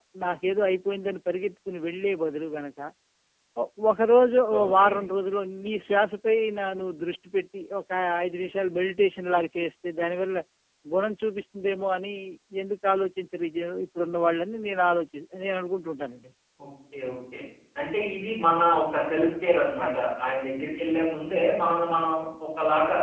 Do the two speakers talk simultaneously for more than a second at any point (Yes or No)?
No